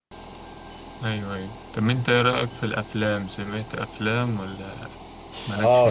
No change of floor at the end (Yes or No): No